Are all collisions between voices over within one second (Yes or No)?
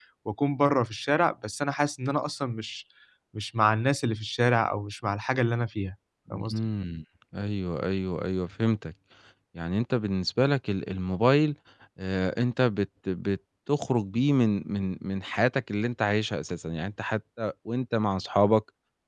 Yes